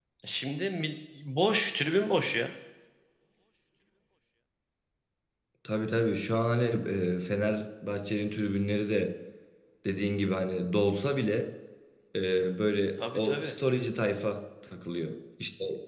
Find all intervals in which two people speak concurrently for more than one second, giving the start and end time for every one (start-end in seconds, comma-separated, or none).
none